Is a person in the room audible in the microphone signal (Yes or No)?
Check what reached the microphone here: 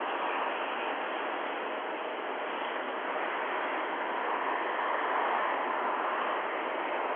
No